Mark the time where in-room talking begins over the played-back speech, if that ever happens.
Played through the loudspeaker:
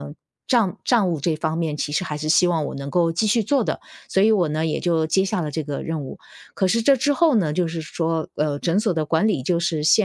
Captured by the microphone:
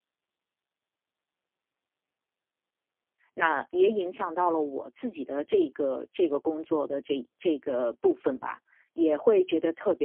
3 s

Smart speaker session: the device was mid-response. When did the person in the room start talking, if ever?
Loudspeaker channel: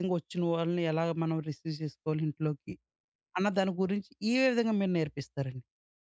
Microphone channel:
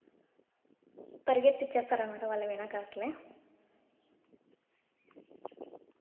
1 s

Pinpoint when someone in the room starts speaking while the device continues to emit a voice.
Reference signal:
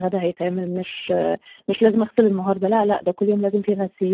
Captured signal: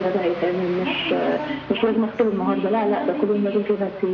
0 s

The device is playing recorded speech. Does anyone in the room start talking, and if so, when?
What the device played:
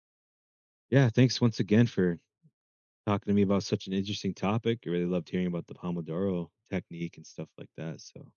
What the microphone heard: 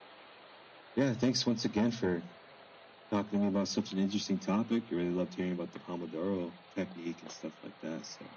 none

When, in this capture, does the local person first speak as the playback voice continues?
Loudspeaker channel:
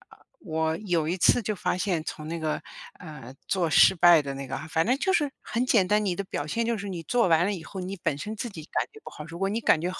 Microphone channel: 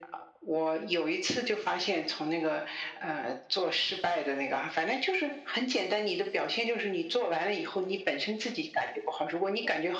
none

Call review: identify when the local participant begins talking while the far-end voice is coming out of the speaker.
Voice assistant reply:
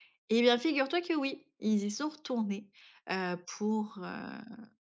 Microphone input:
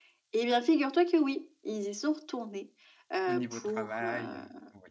3 s

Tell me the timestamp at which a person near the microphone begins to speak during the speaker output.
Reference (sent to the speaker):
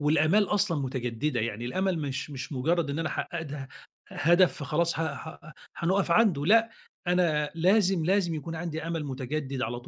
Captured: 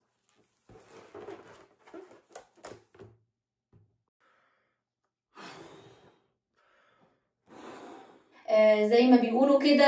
8 s

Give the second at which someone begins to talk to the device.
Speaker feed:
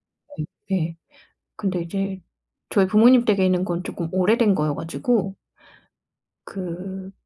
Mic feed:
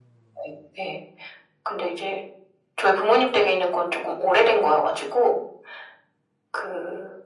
none

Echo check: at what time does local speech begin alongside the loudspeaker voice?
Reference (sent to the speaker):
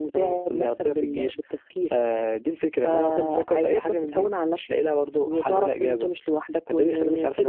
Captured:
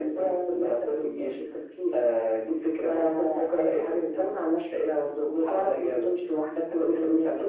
none

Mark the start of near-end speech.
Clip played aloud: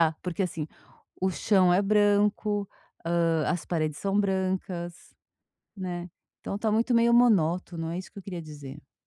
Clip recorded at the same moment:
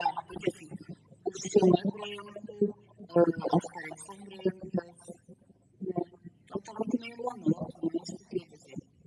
none

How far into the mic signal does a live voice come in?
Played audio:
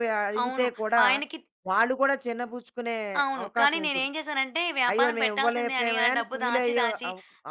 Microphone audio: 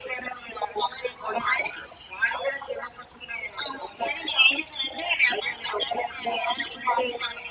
none

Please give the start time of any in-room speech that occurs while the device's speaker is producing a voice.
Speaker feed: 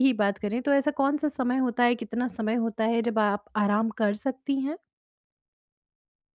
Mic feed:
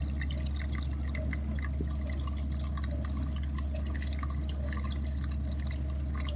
none

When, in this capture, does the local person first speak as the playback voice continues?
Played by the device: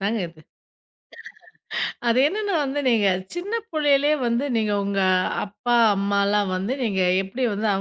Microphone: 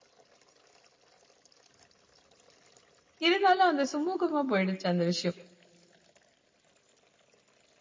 3 s

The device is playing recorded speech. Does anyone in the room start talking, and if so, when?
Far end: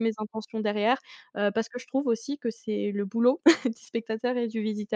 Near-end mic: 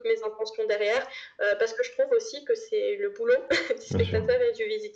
4 s

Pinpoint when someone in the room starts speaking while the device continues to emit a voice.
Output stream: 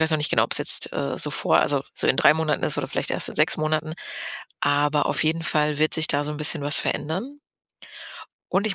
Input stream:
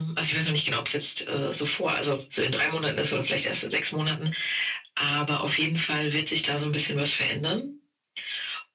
none

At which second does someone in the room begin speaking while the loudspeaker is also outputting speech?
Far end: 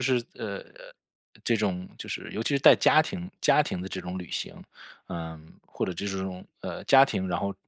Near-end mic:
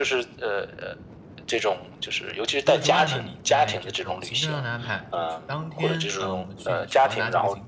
3 s

